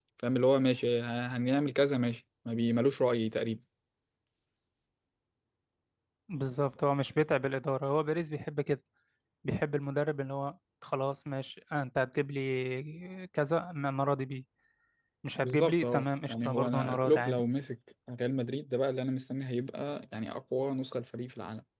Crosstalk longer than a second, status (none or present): present